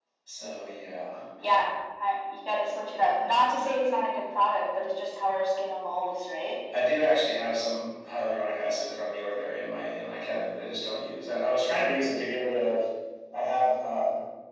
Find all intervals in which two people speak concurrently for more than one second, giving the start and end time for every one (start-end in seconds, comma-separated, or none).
none